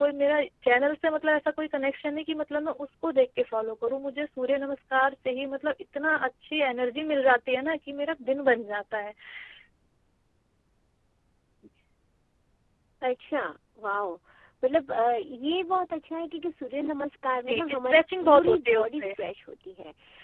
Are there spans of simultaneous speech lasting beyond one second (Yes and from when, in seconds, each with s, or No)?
Yes, from 17.5 s